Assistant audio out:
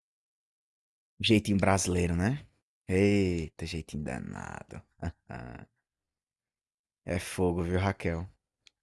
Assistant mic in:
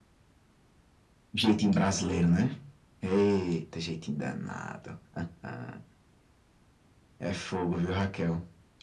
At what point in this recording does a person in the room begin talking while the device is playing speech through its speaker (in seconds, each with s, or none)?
none